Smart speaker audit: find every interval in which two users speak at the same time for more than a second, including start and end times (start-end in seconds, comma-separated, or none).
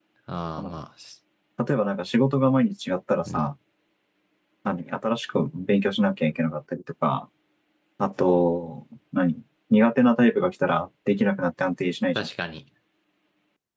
none